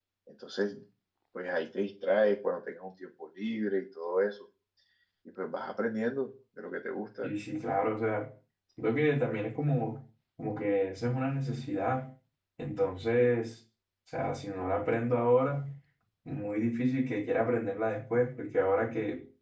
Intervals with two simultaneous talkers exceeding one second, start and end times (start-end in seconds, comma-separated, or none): none